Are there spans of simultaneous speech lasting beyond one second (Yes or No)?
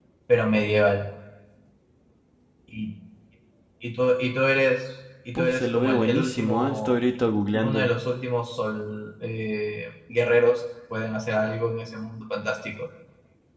Yes